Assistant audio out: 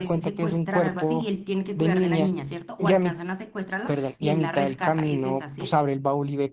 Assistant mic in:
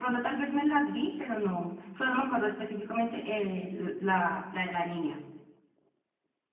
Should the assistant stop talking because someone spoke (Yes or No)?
Yes